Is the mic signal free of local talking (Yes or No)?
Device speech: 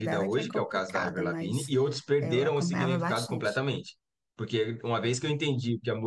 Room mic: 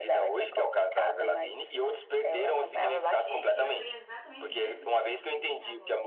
No